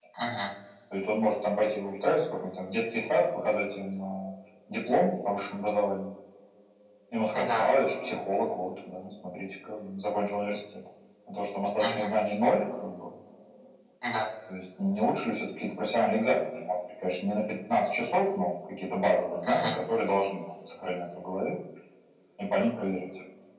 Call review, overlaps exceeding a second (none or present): none